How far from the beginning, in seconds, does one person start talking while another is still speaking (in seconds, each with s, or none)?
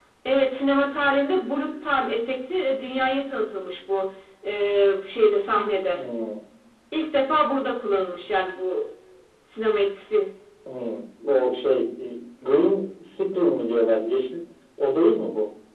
none